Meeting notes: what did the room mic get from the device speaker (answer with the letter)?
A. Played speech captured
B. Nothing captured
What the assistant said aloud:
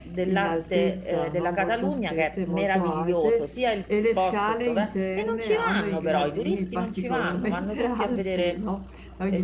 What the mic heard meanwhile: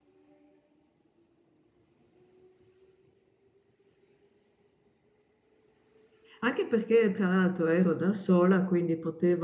B